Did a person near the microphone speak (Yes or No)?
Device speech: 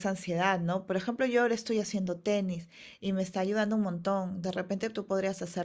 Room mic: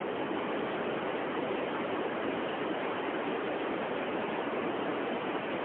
No